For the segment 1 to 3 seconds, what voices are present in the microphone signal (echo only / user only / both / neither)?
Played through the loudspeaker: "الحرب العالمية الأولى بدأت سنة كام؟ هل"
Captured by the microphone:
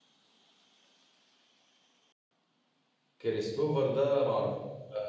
neither